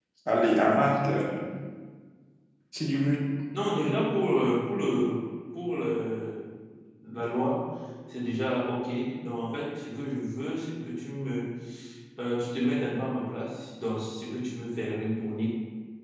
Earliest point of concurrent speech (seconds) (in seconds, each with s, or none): none